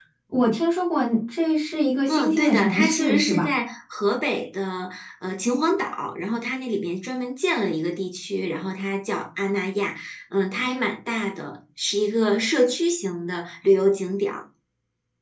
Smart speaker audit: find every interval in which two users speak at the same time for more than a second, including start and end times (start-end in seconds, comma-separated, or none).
2.1-3.5